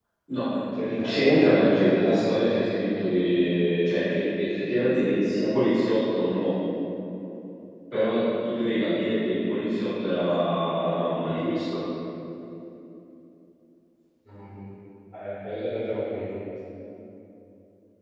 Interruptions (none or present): present